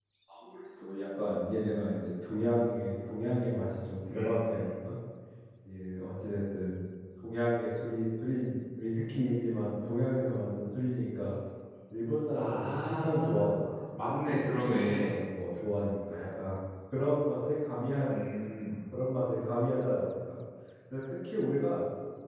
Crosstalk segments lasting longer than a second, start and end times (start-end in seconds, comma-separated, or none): 12.3-13.6